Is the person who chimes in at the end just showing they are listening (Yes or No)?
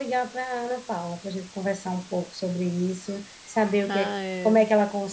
Yes